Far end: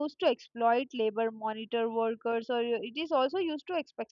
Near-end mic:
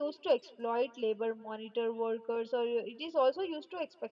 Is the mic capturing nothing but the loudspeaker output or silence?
Yes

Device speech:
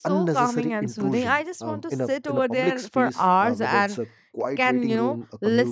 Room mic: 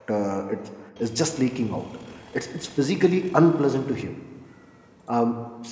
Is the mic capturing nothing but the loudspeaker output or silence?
No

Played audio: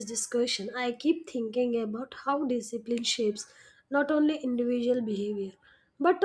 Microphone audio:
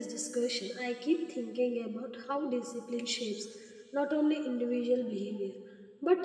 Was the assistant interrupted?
No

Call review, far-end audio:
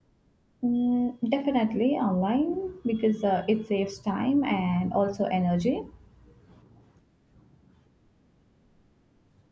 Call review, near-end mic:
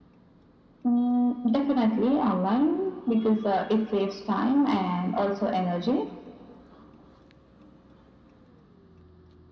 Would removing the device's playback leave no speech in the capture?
Yes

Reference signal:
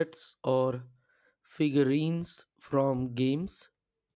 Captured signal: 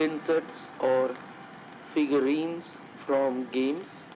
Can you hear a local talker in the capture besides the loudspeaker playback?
No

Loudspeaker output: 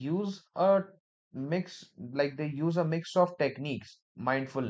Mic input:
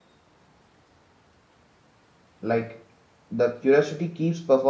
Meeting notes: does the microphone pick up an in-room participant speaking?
Yes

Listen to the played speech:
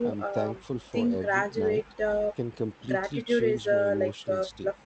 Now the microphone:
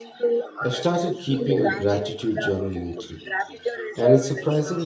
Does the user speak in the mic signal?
Yes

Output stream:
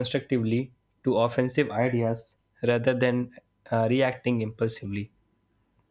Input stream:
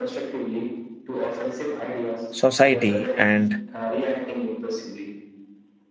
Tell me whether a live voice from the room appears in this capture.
Yes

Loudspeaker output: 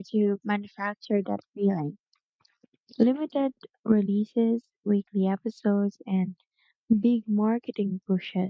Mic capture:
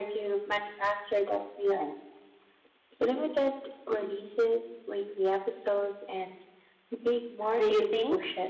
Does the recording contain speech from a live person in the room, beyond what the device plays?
Yes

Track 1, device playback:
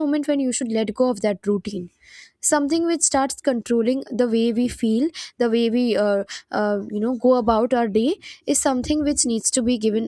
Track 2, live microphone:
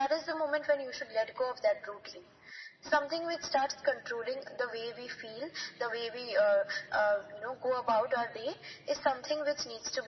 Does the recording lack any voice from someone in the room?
Yes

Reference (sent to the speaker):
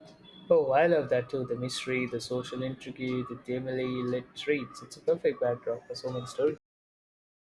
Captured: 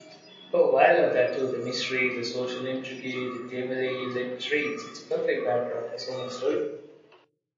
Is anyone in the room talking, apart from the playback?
No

